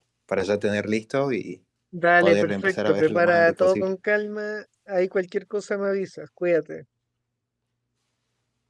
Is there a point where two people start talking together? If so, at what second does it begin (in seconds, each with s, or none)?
2.2 s